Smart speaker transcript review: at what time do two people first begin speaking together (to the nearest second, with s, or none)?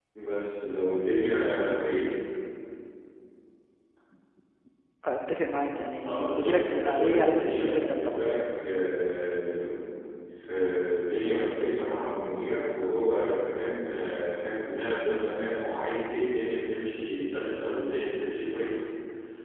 6 s